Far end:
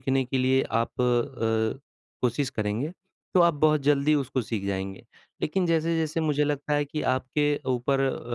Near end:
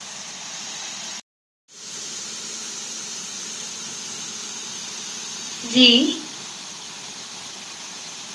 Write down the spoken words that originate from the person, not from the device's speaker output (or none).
जी।